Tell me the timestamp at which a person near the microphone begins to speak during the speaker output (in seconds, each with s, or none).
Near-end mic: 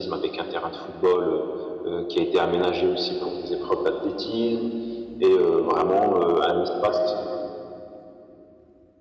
none